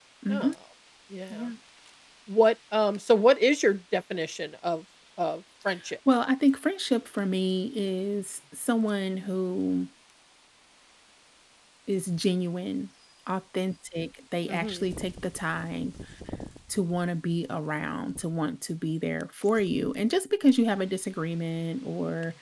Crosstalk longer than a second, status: none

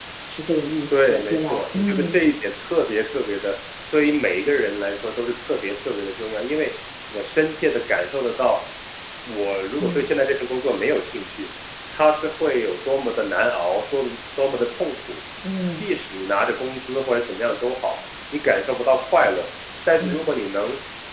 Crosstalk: present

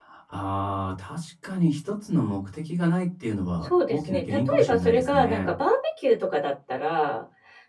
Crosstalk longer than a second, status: present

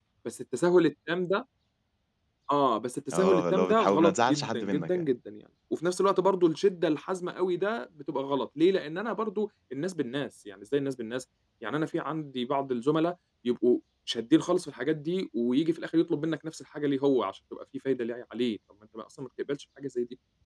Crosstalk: present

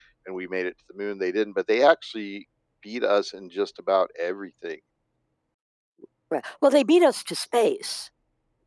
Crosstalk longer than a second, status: none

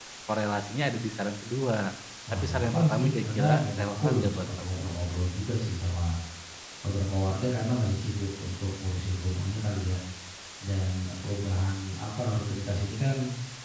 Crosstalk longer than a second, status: present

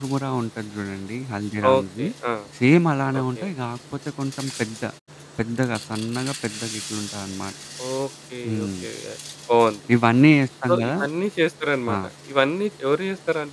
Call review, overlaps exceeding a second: none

